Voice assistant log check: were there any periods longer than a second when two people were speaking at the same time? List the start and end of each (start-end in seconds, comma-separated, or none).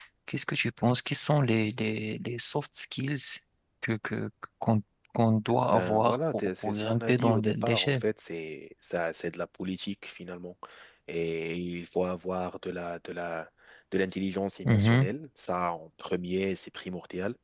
5.7-8.0